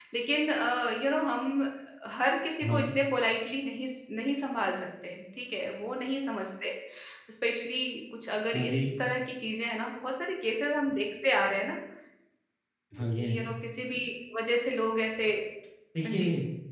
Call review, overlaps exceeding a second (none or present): none